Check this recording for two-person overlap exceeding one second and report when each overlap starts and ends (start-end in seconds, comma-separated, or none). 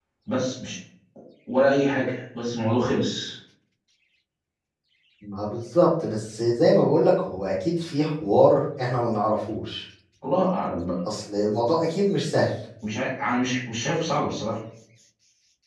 none